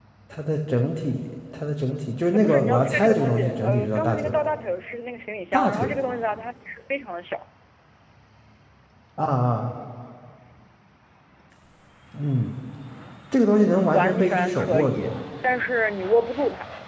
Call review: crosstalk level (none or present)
present